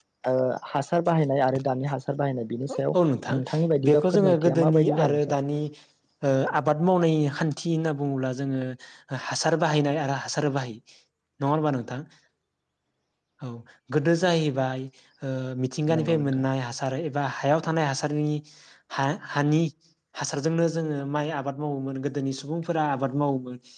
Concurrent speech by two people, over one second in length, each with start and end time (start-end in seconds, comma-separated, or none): 3.9-5.2